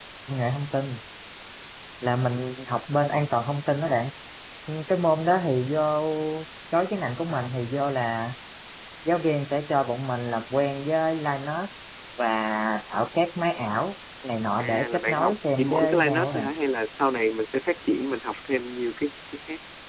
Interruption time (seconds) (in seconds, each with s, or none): 14.6 s